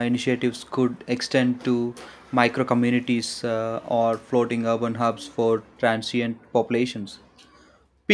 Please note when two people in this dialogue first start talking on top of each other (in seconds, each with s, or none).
none